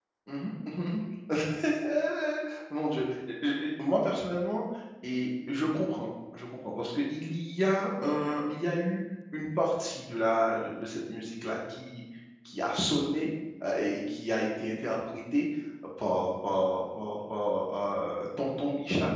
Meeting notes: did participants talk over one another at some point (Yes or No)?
No